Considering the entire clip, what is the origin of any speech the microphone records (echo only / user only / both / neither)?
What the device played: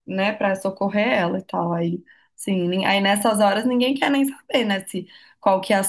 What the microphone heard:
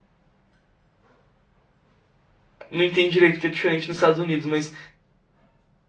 user only